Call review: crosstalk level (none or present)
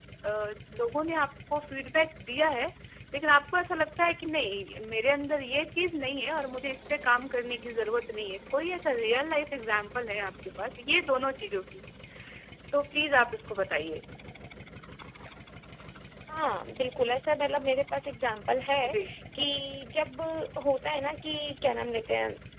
none